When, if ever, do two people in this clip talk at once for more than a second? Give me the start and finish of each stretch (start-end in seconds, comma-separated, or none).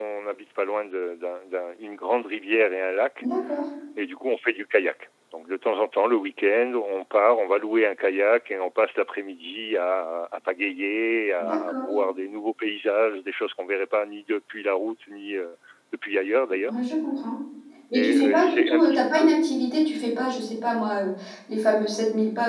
17.9-19.3